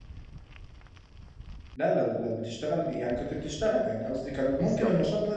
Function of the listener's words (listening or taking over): listening